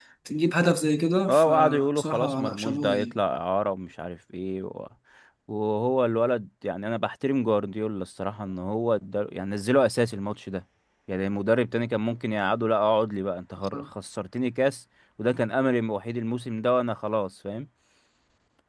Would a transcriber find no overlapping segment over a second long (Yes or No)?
No